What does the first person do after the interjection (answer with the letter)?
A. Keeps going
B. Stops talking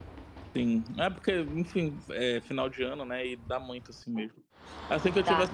A